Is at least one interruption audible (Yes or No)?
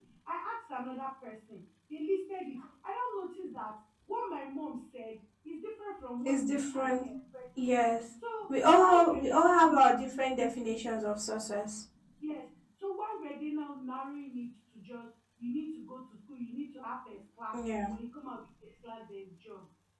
Yes